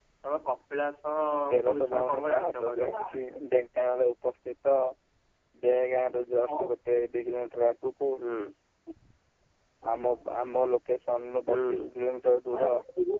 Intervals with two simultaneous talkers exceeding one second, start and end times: 1.6-2.9

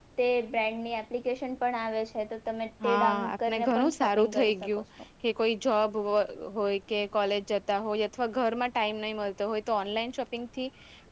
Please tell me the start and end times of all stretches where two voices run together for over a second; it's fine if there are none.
2.8-4.8

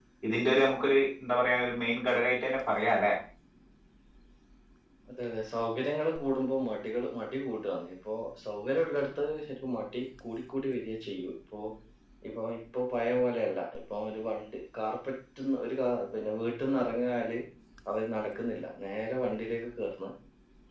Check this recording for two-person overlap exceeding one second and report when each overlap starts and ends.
none

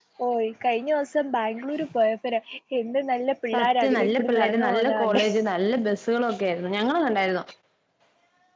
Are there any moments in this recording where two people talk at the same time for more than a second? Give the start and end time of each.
3.5-5.2

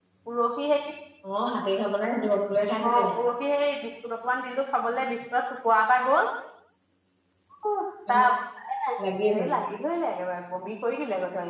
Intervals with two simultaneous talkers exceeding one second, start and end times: none

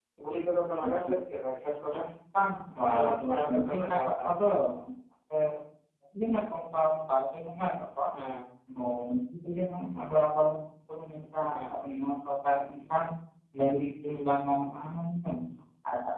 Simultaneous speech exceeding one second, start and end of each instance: 2.8-4.3

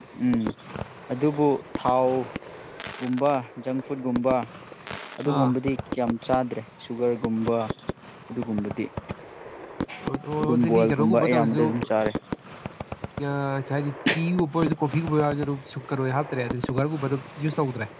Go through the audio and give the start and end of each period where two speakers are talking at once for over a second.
10.4-11.6

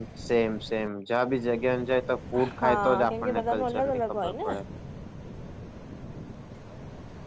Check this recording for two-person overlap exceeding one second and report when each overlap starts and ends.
2.6-4.5

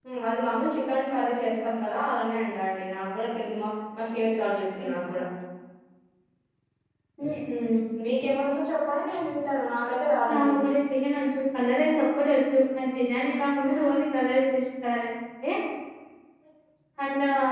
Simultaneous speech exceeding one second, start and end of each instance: none

